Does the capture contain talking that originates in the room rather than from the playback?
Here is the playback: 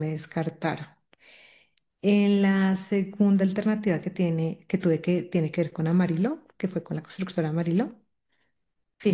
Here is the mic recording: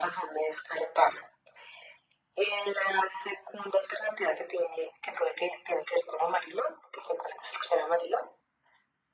No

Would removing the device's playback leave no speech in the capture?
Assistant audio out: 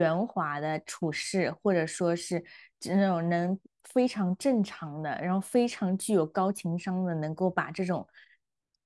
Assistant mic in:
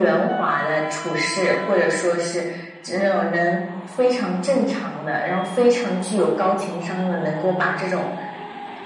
Yes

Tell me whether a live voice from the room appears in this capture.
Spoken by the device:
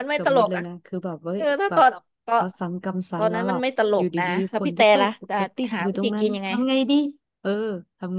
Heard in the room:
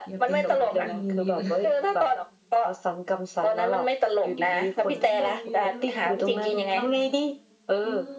Yes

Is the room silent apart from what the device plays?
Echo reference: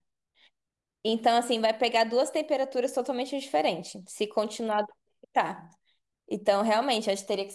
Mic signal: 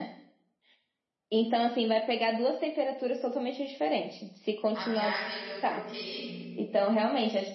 No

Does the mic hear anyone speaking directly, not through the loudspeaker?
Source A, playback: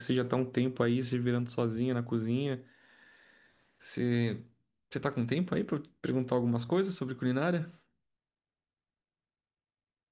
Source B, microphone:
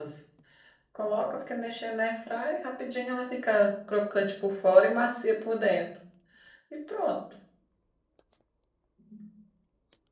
Yes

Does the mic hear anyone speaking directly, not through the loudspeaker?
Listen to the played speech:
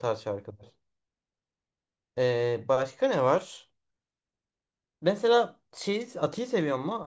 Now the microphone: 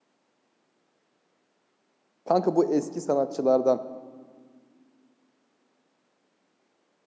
Yes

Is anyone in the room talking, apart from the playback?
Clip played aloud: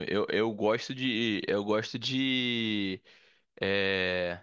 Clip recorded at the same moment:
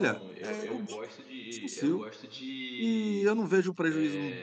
Yes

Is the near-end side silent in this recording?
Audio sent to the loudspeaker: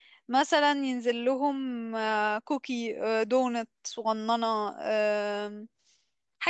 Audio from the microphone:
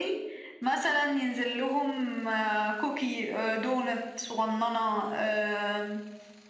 Yes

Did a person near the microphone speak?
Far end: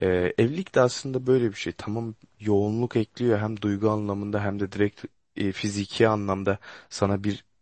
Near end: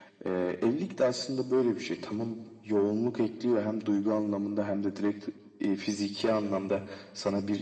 No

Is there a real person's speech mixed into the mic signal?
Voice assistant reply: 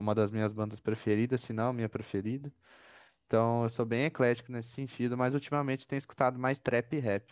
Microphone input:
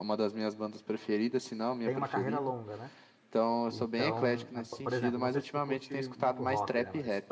Yes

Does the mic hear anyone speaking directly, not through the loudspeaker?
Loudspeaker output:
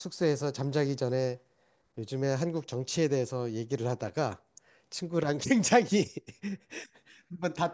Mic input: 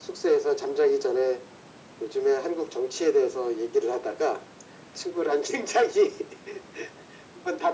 No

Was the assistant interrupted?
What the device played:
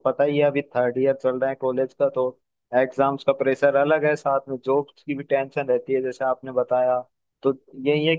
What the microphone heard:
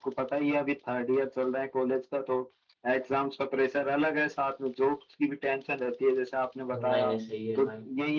Yes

